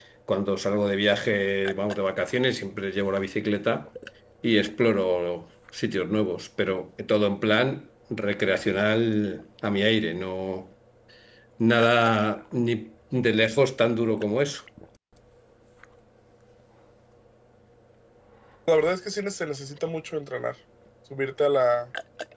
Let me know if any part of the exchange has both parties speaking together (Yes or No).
No